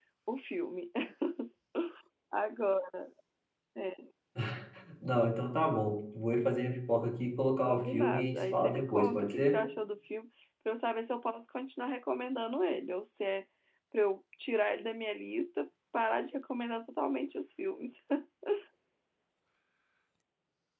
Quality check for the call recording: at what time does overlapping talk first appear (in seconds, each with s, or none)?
7.6 s